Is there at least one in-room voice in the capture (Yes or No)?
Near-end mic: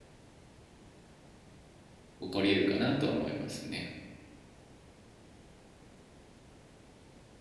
Yes